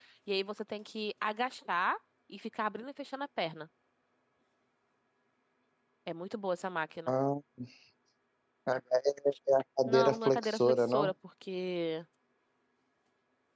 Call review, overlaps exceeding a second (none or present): present